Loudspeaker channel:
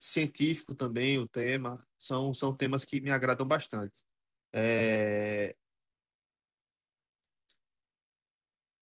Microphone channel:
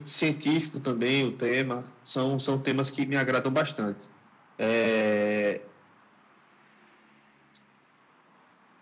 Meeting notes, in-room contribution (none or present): none